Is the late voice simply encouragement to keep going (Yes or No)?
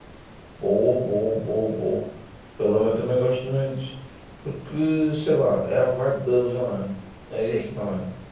No